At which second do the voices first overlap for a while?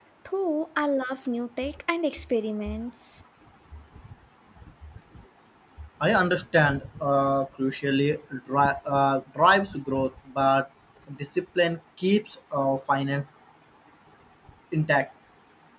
none

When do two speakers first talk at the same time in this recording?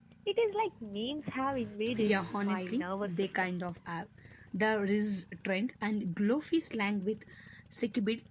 2 s

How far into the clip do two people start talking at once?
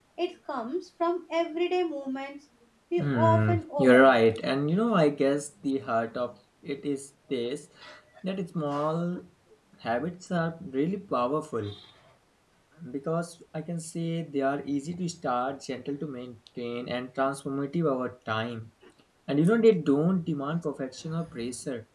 3 s

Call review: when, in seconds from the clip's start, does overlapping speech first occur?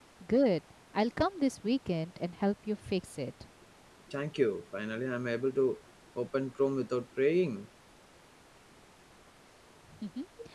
none

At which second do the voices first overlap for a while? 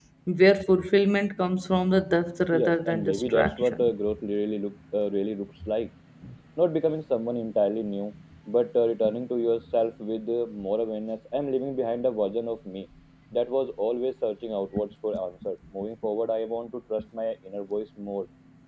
3 s

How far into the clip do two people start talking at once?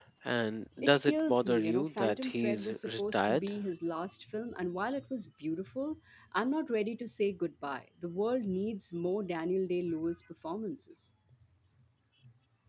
1 s

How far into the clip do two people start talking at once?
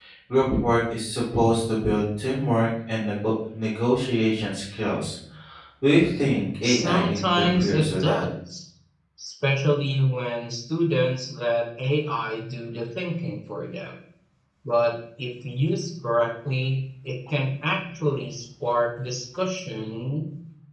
7 s

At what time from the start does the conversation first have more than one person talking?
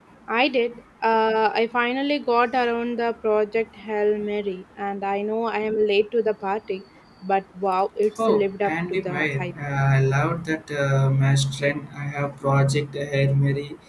8 s

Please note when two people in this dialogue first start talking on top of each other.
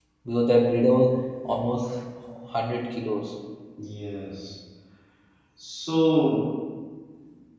none

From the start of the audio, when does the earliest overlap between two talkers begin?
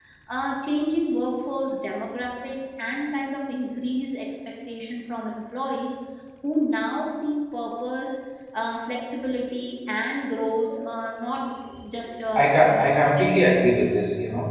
12 s

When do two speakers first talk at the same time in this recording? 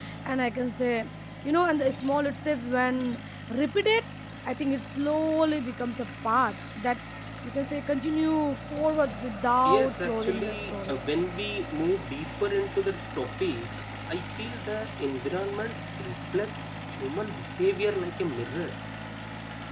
10 s

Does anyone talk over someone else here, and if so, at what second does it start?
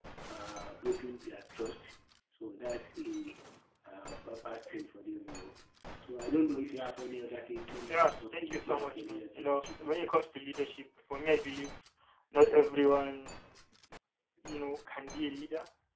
8 s

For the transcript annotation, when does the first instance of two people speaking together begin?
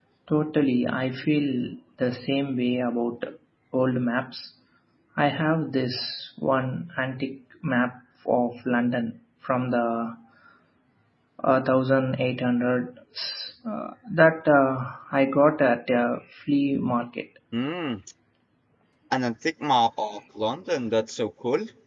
none

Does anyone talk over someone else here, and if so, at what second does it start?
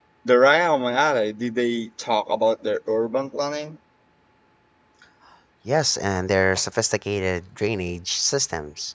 none

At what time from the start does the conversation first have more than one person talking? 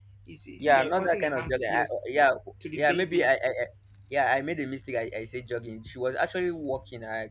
1 s

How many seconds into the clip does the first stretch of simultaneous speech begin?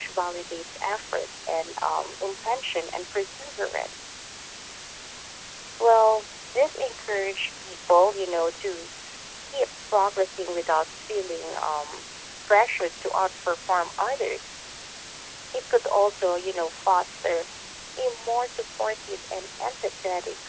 none

